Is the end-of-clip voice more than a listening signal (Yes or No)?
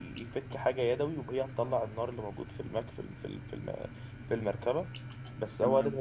No